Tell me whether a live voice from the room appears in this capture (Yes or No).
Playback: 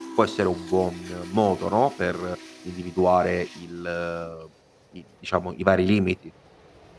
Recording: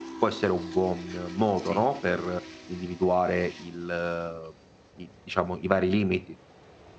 Yes